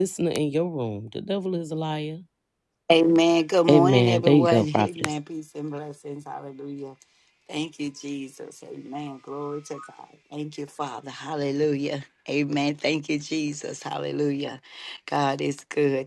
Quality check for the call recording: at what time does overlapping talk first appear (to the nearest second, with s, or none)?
4 s